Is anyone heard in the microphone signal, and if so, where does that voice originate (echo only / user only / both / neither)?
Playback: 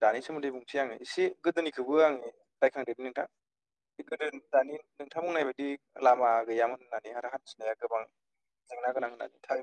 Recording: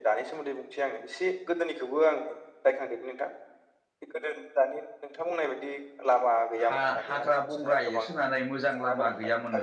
both